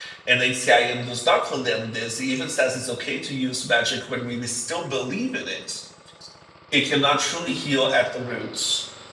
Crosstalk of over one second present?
No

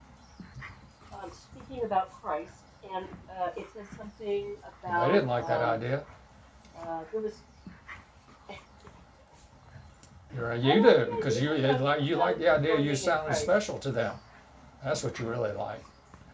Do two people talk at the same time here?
Yes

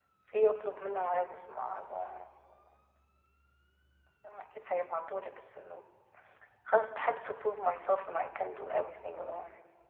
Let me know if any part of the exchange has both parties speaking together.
No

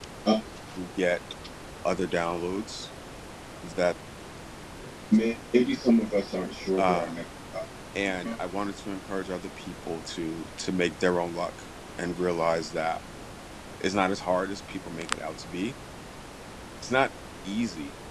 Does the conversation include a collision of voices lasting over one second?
No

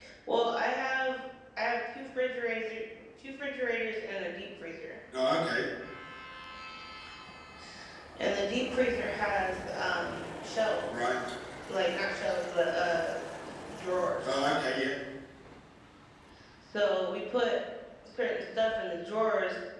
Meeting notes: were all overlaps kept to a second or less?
Yes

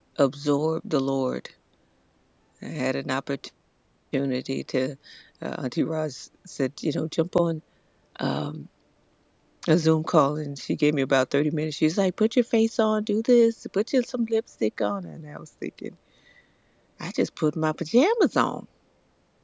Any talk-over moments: No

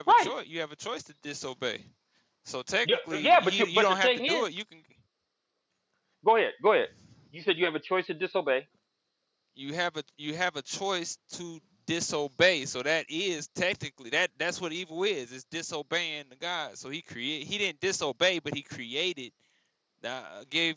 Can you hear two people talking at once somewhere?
Yes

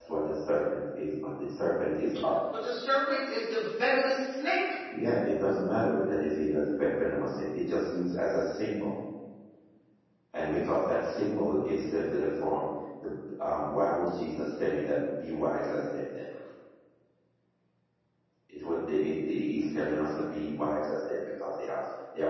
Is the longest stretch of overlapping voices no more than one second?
Yes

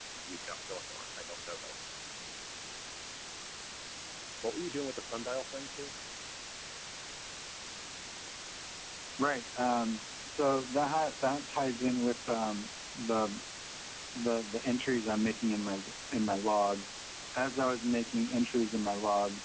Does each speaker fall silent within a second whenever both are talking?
Yes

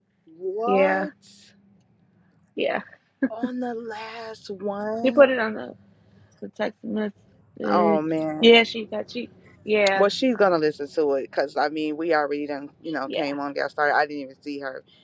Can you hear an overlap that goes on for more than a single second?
No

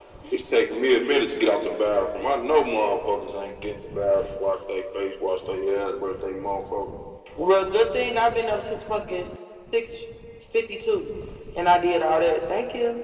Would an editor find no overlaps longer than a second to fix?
Yes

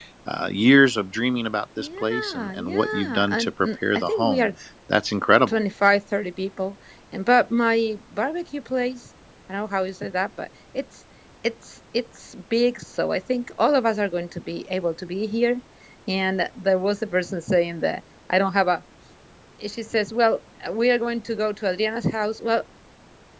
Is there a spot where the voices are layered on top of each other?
Yes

